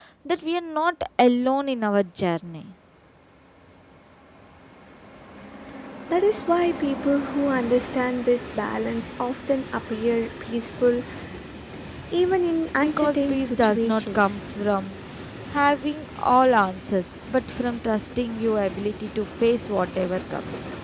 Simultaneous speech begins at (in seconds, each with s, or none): 12.8 s